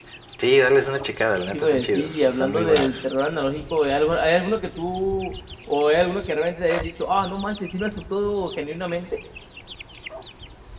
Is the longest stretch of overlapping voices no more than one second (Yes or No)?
No